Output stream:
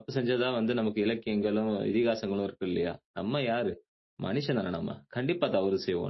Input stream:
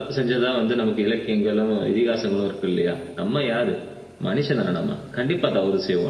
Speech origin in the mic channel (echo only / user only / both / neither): echo only